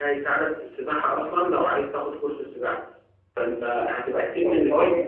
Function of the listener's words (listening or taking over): taking over